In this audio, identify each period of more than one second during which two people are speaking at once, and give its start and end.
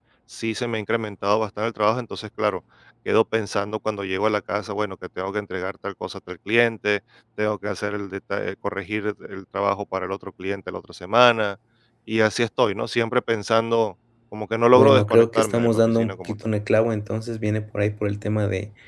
14.7-16.3

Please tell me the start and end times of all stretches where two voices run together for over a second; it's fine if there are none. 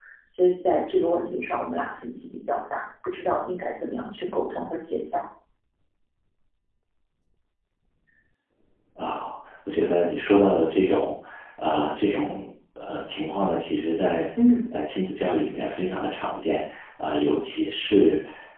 none

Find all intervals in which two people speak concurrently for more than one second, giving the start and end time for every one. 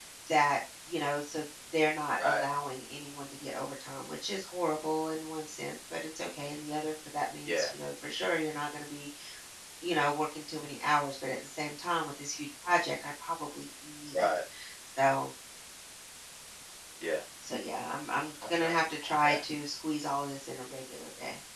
none

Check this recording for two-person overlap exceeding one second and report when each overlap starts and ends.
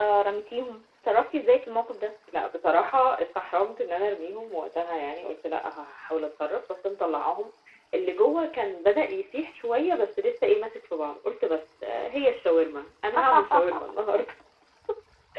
none

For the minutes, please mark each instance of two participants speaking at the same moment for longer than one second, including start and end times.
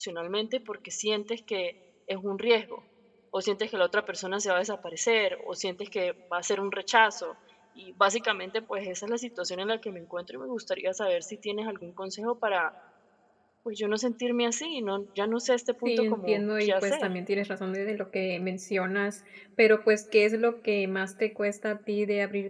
15.8-17.1

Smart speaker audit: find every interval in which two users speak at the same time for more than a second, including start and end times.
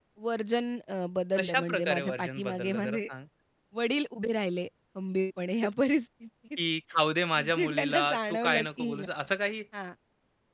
1.4-3.1, 7.4-9.1

